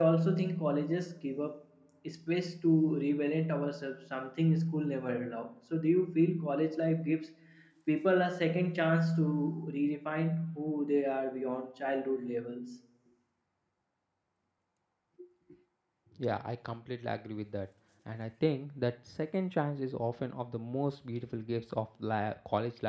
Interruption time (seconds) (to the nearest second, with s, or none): none